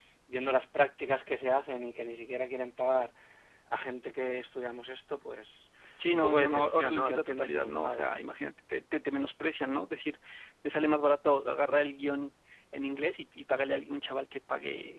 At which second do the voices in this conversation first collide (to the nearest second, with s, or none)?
6 s